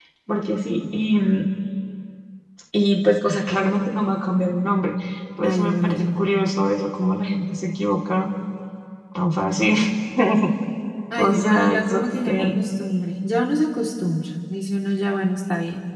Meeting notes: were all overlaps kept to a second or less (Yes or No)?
No